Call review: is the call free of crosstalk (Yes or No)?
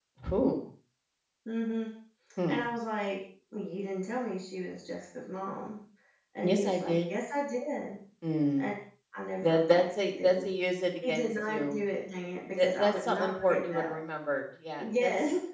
No